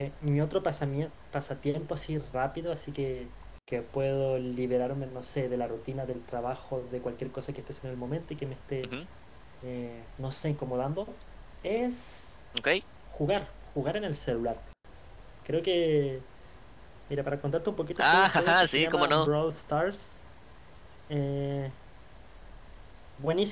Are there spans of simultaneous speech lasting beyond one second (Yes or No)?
Yes